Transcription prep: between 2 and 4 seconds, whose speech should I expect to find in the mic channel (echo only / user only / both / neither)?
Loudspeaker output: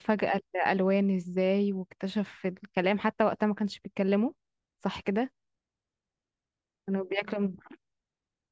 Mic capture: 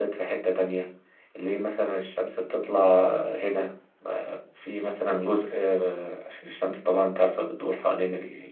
user only